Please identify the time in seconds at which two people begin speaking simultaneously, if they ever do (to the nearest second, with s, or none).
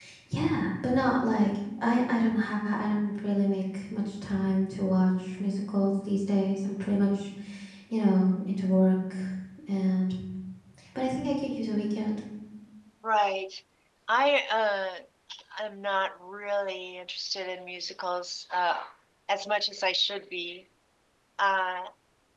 none